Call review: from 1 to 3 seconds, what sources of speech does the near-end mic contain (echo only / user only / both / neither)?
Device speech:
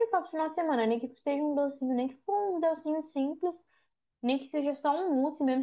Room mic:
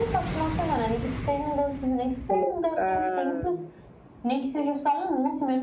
both